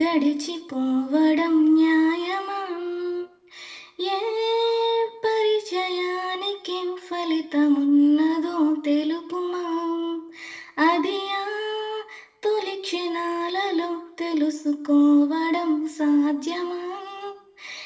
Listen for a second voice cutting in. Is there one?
No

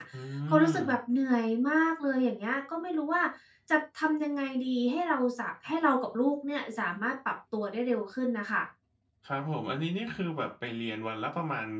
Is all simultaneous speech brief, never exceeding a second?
Yes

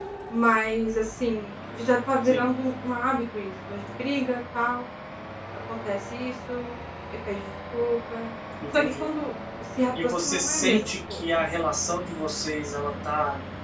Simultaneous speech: Yes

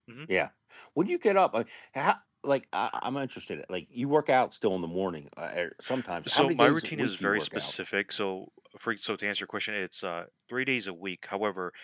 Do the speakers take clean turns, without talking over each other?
No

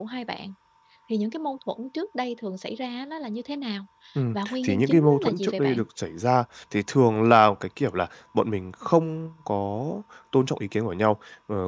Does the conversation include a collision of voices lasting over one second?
Yes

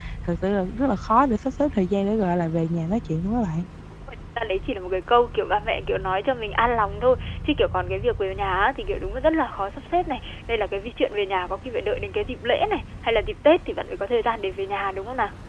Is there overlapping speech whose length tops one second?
No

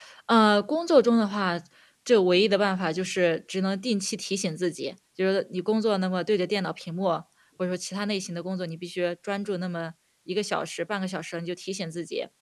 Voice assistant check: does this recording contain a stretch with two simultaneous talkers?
No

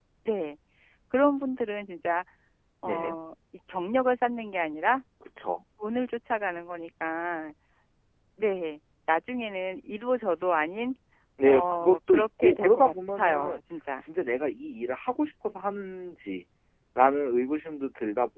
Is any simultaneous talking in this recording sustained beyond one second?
Yes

